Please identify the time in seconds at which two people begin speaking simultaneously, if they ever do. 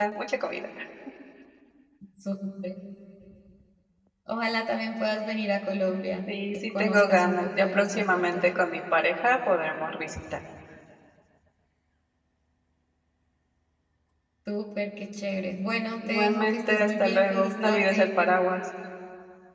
6.5 s

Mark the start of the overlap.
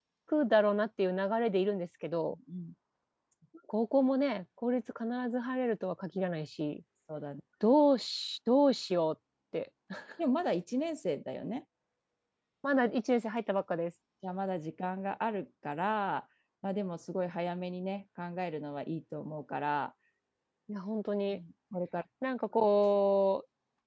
none

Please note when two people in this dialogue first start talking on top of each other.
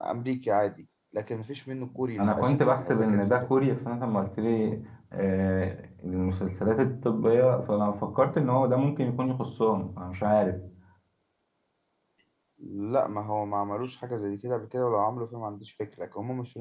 2.2 s

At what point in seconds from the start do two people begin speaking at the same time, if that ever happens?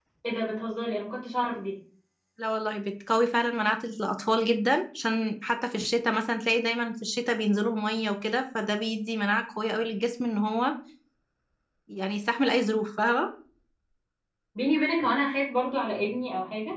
none

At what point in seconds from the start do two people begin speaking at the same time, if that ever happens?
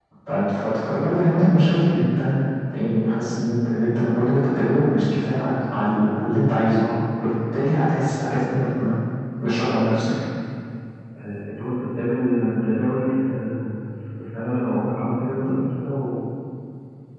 none

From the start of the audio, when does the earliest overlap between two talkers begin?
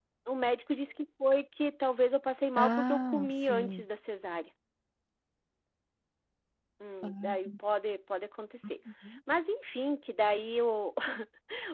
2.6 s

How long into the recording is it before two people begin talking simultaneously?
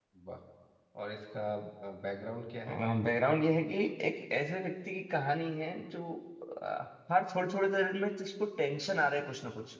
none

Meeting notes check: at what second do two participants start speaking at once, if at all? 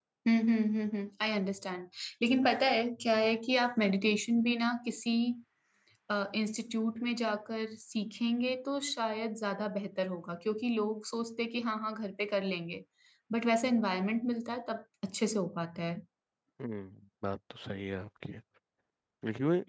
none

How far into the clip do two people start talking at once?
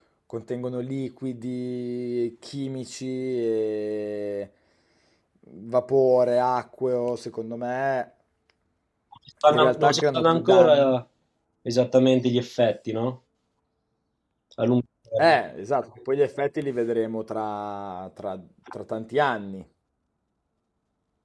9.5 s

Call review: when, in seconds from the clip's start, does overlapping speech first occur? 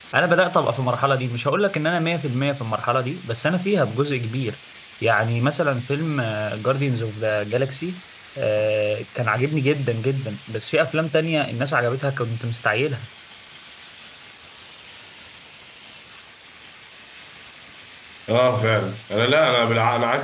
none

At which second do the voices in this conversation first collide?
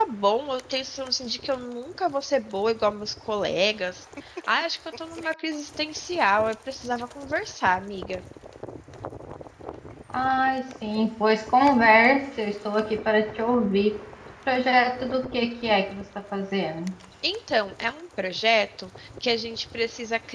none

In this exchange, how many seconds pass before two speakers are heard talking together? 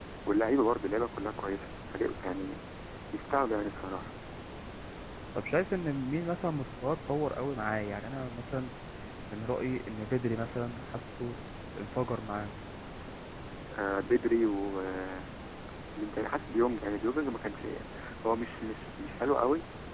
none

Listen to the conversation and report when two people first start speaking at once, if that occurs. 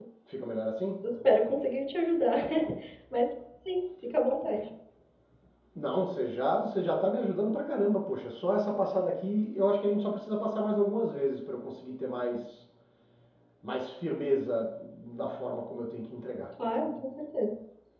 none

